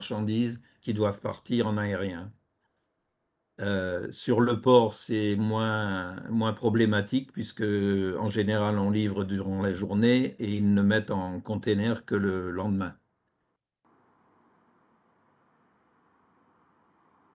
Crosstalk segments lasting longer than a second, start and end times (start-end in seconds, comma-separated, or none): none